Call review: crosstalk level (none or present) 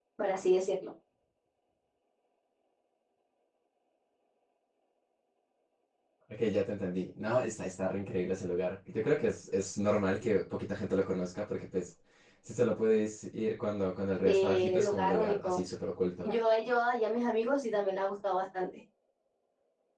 present